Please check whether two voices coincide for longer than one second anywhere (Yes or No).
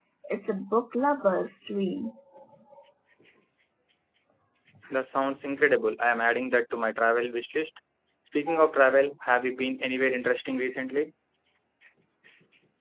No